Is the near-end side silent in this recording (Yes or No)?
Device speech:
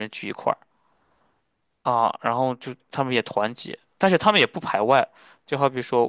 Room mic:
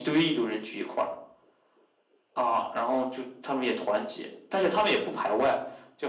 Yes